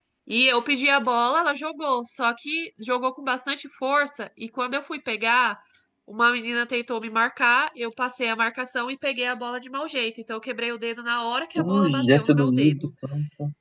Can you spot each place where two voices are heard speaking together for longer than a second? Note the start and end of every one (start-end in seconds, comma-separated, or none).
11.6-12.9